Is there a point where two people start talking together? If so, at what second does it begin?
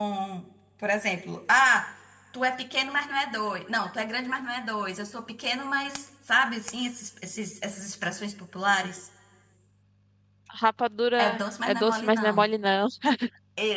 11.2 s

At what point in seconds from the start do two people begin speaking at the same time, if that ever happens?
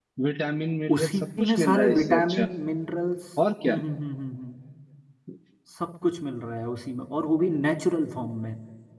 0.9 s

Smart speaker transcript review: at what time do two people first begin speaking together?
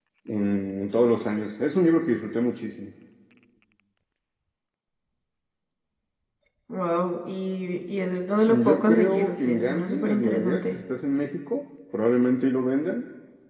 8.5 s

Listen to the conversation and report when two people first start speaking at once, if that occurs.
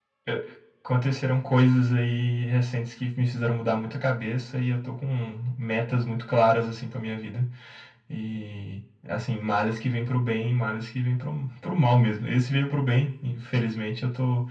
none

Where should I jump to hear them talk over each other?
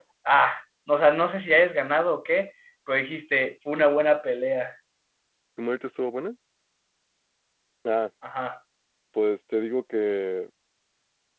none

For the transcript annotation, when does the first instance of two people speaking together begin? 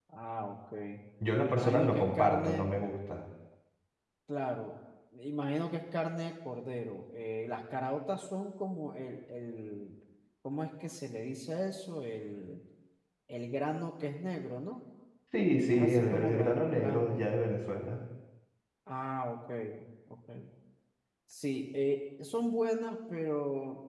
1.4 s

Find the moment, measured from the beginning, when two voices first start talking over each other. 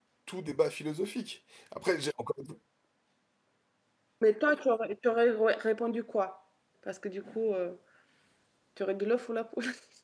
none

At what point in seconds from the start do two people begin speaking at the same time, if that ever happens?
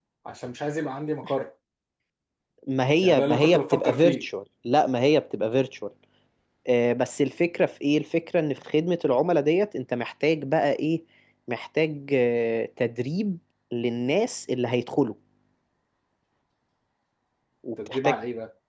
3.0 s

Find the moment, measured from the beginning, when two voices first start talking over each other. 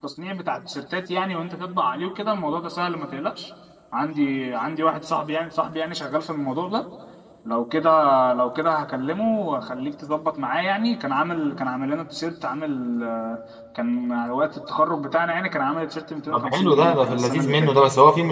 16.3 s

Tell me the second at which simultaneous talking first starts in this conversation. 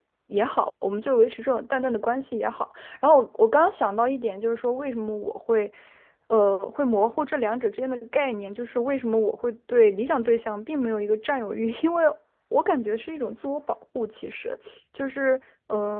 none

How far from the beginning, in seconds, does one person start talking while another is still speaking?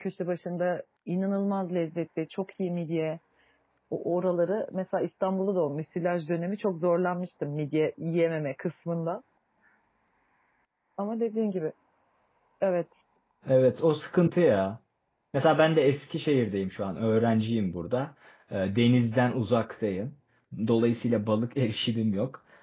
none

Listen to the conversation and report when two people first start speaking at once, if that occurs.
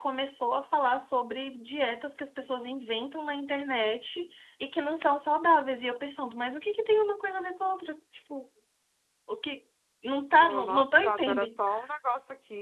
10.3 s

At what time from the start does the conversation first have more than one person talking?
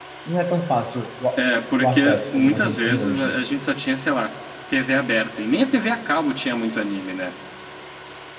1.8 s

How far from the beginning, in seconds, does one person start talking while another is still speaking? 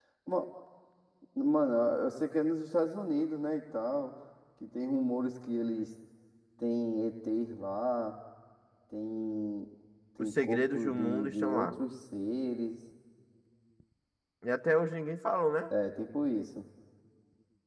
10.2 s

